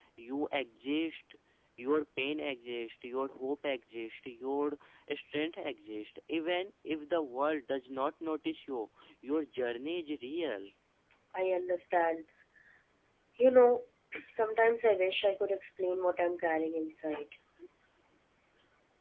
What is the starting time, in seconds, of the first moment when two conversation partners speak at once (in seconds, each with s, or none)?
none